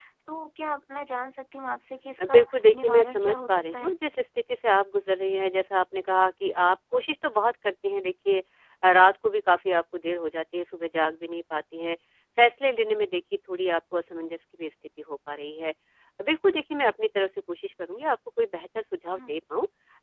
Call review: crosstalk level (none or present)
present